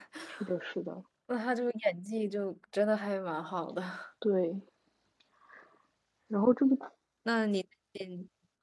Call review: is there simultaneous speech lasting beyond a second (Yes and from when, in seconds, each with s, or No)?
No